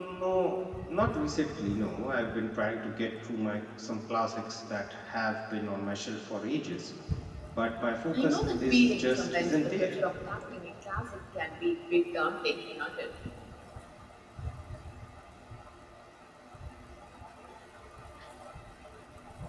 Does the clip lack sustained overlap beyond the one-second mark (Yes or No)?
No